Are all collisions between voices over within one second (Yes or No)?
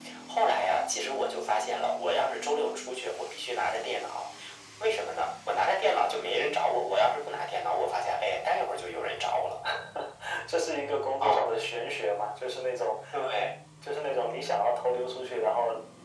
Yes